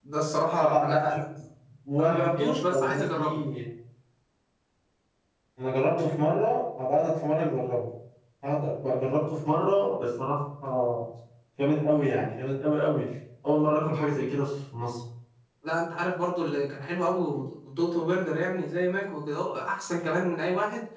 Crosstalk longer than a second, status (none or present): present